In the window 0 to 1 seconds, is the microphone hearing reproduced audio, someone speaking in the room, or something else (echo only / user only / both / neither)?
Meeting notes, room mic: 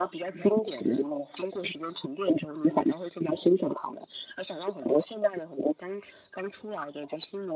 echo only